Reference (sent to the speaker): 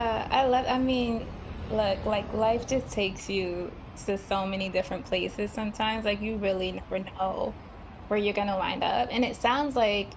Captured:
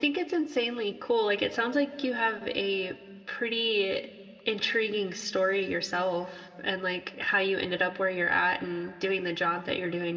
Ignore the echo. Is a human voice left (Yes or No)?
Yes